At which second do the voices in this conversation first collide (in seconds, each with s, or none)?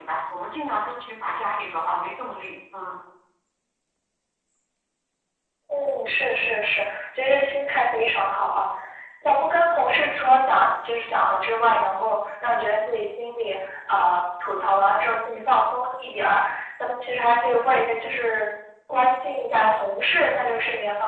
none